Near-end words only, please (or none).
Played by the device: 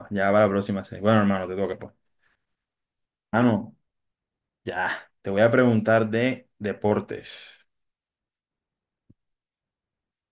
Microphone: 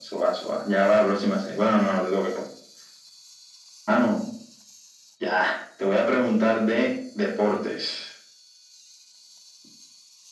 none